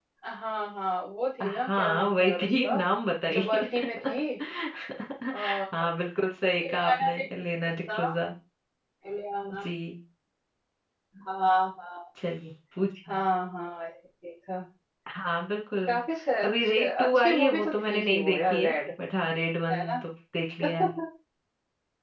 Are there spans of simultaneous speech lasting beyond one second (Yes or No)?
Yes